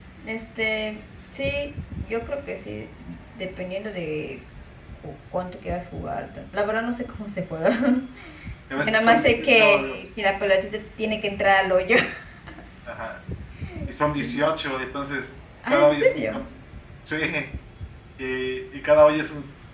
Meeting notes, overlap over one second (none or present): present